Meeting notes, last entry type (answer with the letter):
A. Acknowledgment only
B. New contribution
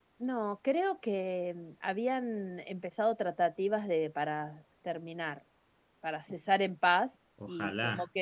A